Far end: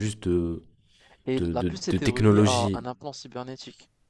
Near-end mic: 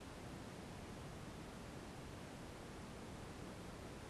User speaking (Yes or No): No